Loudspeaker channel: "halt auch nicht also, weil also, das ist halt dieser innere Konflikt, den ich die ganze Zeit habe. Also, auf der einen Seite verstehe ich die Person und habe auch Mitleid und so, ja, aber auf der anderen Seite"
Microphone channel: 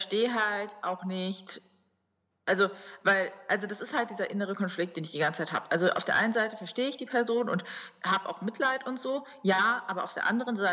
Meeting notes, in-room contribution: none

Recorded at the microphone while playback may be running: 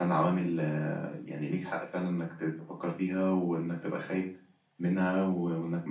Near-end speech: present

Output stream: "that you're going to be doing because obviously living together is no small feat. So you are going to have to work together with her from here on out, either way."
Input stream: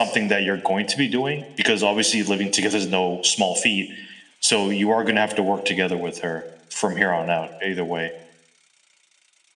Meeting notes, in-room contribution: none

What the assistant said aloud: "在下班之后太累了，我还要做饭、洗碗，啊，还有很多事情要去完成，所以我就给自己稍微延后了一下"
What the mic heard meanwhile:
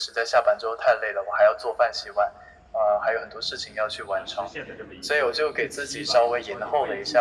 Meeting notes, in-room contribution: present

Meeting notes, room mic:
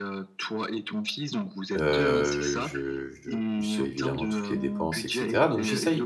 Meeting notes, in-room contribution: present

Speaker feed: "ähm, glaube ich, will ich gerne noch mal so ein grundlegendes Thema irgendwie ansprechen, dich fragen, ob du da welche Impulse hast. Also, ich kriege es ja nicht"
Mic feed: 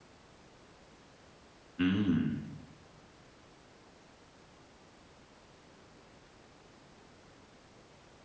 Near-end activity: present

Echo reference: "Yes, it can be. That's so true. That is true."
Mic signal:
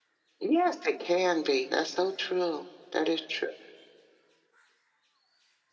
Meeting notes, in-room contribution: none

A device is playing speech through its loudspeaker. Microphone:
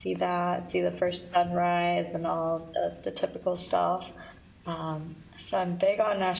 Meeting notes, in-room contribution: present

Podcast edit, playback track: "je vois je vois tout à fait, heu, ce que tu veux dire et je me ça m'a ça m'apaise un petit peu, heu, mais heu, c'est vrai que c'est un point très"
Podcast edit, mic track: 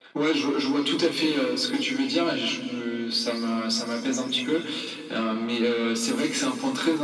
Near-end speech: none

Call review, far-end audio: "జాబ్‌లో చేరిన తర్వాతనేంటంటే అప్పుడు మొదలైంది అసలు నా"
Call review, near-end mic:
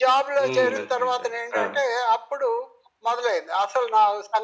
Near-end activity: present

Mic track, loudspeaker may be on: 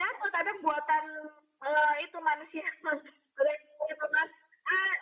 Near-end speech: none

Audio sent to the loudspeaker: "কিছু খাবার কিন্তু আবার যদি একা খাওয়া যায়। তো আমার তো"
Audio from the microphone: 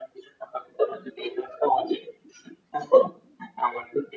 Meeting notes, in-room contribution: none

